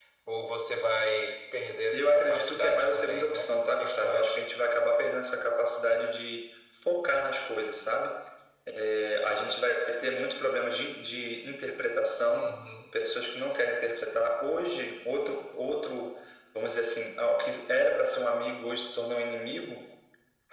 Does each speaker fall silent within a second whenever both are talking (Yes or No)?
No